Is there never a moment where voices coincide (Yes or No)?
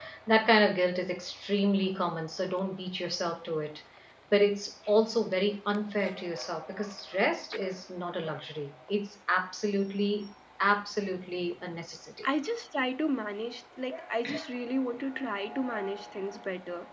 Yes